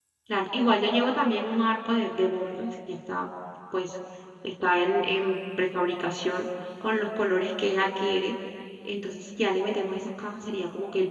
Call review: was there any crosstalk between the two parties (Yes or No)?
No